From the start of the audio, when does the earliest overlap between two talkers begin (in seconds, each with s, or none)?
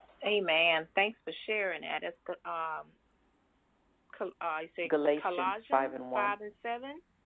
4.9 s